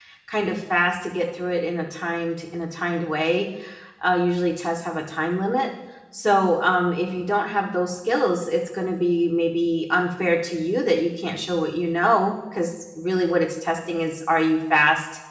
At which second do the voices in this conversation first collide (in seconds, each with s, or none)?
none